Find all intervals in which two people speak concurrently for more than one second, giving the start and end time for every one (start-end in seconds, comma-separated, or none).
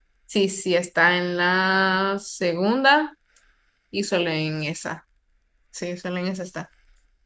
none